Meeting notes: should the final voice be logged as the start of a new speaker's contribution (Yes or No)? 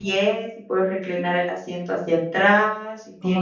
No